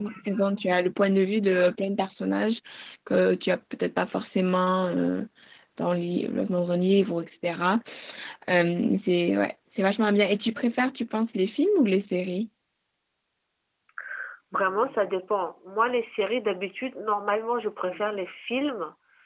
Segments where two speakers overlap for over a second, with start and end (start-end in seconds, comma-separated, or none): none